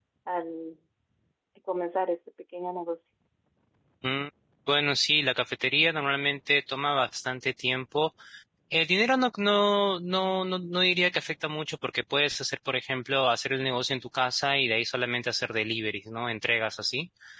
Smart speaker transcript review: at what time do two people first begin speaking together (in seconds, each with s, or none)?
none